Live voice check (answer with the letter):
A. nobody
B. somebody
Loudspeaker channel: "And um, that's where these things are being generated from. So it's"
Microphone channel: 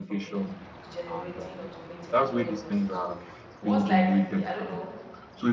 B